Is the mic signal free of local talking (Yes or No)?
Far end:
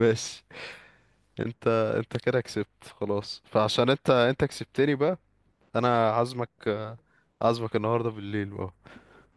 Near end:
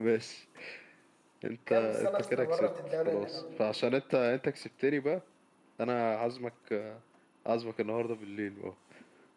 No